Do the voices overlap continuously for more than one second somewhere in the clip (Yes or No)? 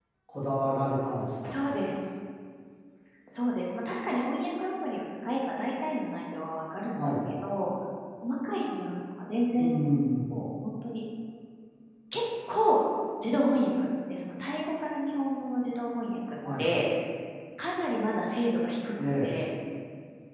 No